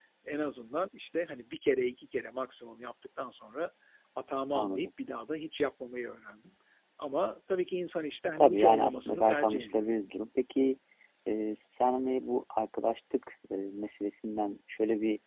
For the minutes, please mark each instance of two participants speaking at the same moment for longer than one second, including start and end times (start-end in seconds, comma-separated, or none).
8.4-9.9